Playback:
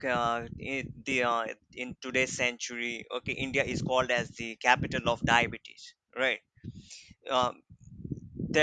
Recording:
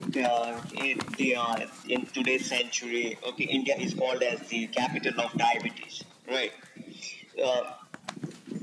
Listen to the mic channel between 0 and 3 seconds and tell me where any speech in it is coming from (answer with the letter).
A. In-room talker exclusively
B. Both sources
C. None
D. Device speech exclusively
D